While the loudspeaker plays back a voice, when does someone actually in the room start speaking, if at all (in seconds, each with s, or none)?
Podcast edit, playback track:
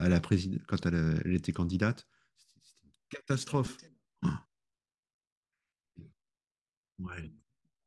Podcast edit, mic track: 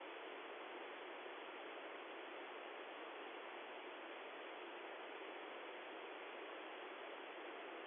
none